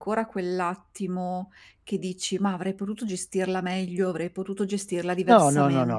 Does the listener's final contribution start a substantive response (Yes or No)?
Yes